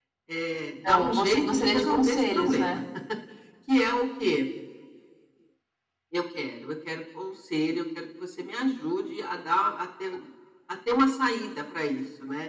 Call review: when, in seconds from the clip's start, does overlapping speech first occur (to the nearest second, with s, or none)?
1 s